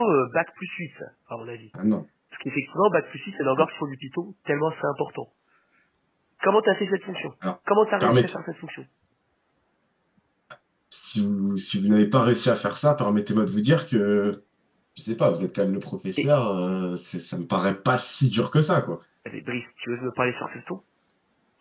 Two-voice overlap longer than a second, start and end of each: none

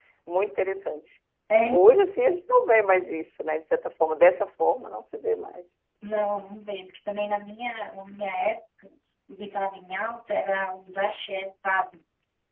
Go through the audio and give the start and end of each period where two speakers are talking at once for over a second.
none

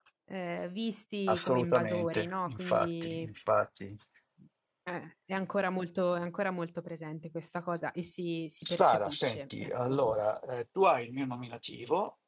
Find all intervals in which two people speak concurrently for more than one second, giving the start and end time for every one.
1.3-3.3, 8.6-10.0

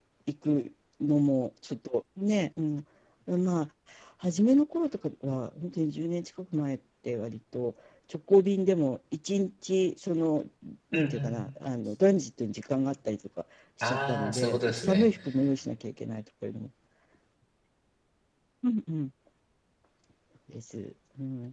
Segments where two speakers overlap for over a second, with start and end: 13.8-15.1

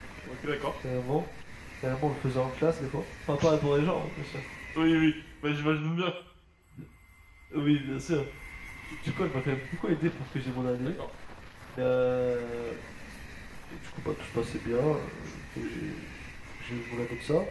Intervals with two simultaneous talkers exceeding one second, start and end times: none

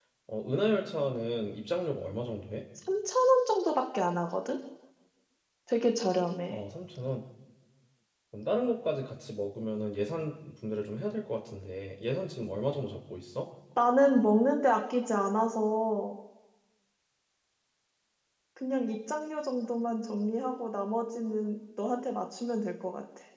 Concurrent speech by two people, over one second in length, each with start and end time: none

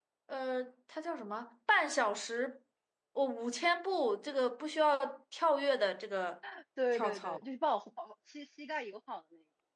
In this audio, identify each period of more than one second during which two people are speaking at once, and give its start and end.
none

